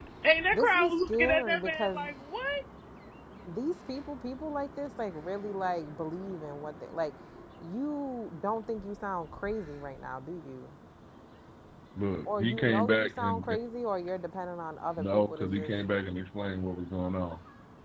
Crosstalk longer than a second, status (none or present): present